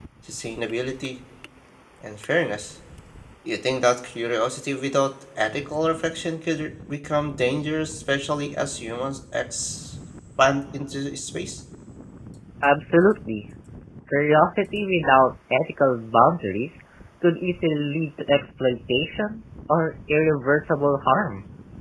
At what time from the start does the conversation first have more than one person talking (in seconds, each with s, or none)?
none